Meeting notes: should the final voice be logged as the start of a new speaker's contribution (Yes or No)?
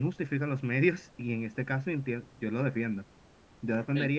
No